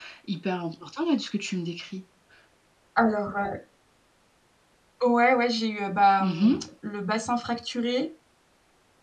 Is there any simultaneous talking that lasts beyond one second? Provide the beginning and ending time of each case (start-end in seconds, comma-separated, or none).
none